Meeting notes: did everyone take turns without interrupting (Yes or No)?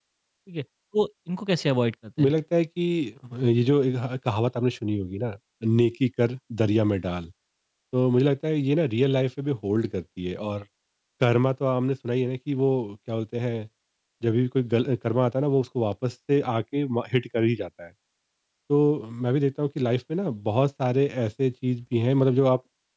Yes